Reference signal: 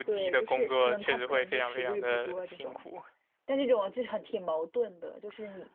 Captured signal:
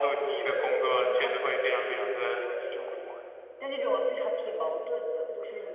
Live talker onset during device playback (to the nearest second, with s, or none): none